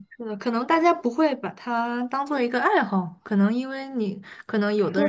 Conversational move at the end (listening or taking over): taking over